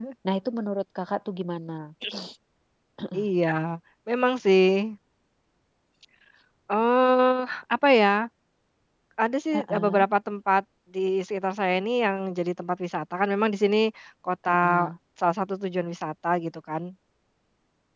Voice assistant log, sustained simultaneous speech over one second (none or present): none